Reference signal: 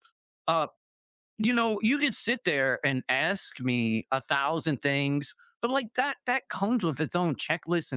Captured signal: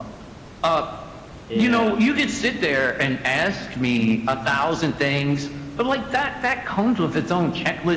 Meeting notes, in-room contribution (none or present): present